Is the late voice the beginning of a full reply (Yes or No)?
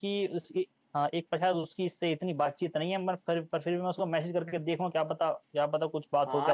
Yes